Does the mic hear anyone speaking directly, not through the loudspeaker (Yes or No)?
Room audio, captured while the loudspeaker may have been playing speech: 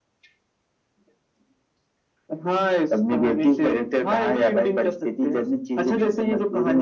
No